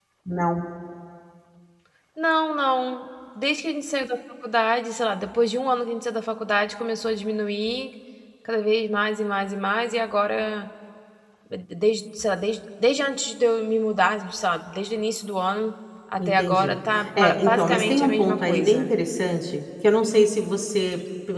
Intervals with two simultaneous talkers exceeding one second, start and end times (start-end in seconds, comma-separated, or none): 16.2-18.9